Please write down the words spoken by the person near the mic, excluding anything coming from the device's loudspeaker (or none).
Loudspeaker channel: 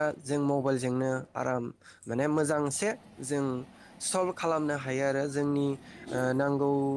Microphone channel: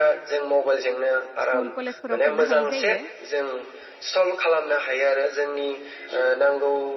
स्कुल कलेजफोराव थांनो हायि जायो।